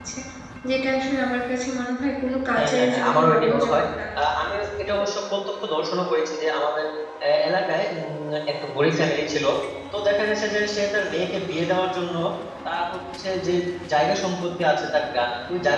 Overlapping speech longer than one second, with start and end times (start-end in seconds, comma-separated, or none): 2.6-3.8